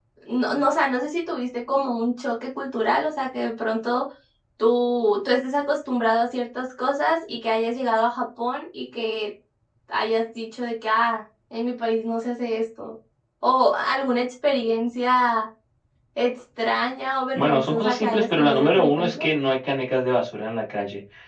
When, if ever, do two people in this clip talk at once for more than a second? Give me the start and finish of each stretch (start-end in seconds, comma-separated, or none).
17.3-19.3